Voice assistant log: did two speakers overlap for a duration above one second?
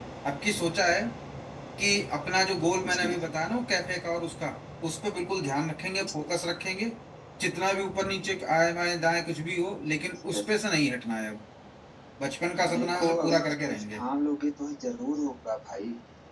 Yes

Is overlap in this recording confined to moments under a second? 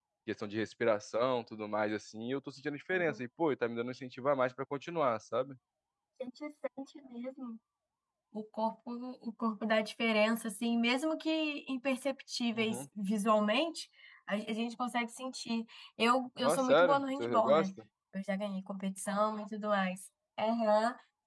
No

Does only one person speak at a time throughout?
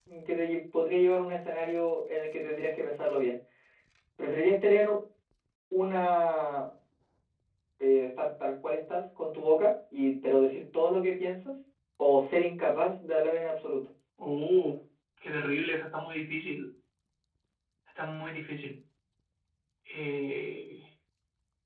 Yes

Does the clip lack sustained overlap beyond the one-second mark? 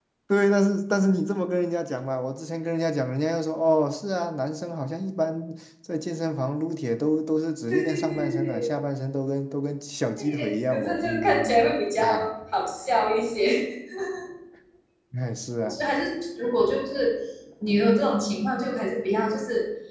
No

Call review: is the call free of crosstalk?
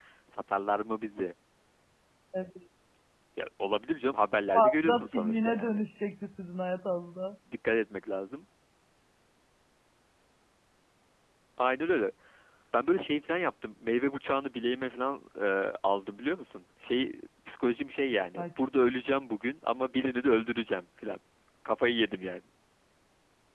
No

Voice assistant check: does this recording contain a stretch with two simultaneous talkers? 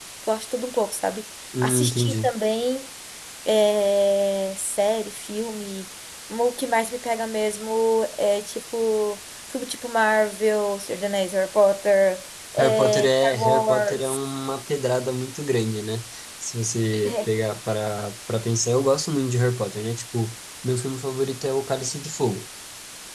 Yes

